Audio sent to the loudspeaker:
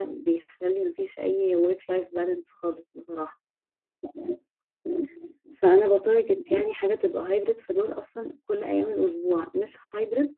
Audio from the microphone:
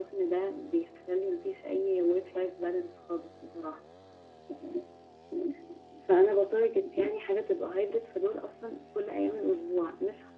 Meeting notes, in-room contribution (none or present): none